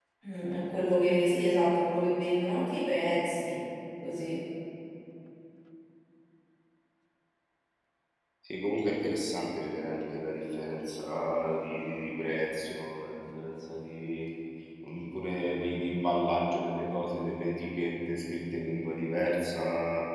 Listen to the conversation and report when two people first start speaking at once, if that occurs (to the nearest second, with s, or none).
none